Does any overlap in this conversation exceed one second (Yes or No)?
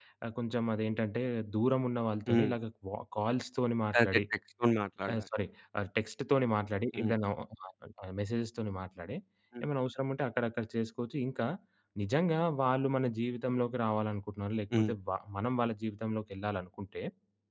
No